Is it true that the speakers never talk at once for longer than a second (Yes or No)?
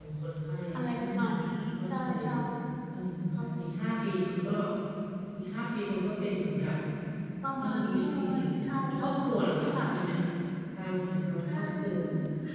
No